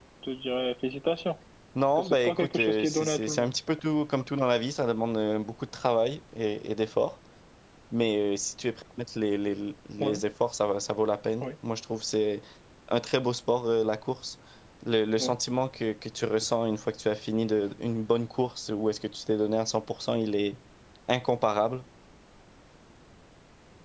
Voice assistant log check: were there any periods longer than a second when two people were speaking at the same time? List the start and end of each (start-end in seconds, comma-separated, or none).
1.9-3.5